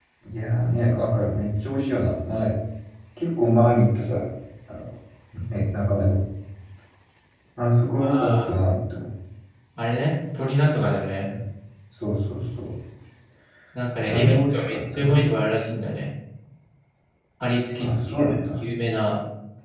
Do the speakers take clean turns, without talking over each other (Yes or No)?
No